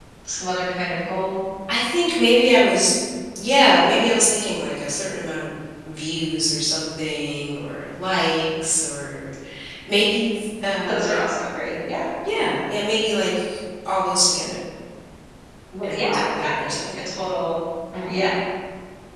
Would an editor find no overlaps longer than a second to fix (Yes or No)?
No